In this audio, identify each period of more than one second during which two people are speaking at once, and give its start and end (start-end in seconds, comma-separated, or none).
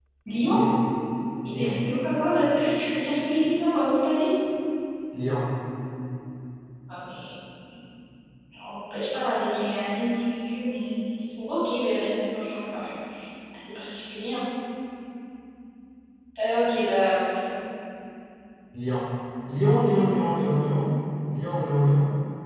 none